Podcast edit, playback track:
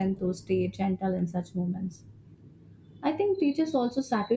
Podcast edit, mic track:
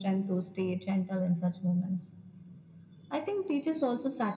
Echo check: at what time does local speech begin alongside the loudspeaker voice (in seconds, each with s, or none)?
none